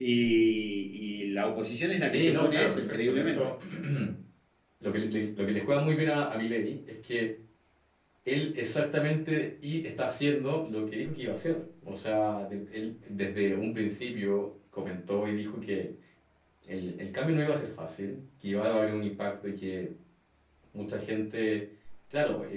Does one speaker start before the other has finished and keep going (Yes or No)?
Yes